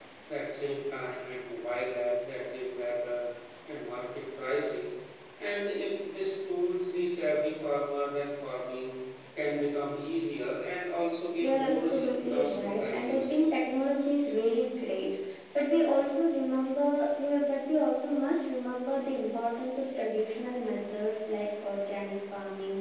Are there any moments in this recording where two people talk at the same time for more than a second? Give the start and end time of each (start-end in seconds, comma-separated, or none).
11.4-13.4